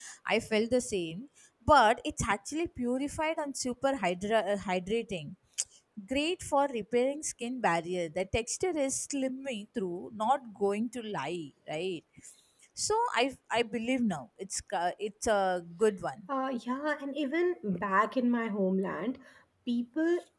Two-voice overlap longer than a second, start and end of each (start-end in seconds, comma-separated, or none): none